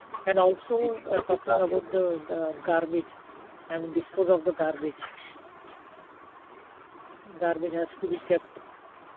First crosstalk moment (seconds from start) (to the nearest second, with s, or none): 1 s